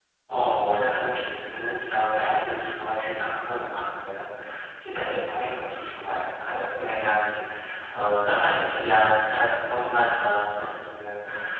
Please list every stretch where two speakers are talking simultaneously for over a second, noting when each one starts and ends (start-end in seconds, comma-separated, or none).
none